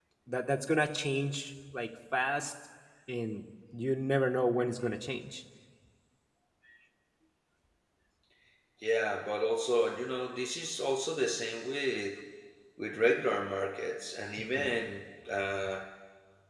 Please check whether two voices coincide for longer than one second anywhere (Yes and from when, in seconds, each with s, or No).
No